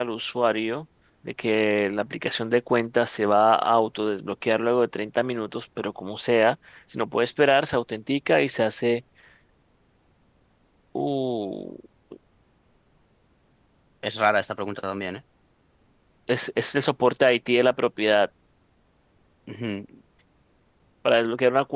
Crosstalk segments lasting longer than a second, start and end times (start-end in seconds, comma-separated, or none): none